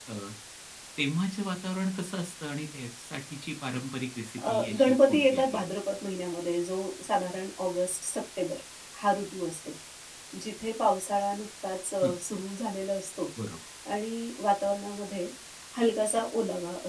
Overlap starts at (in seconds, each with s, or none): 4.4 s